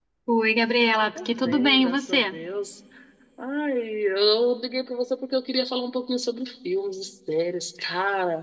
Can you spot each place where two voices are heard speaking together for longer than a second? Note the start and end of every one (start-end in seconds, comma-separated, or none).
1.1-2.4